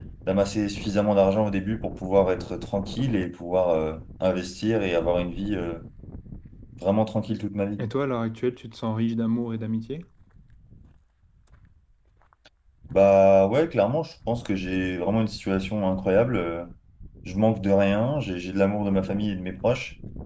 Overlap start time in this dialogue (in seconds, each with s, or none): none